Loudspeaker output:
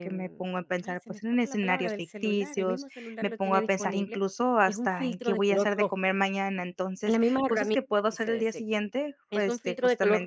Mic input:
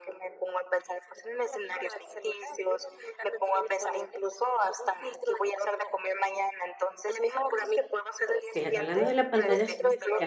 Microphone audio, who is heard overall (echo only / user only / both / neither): both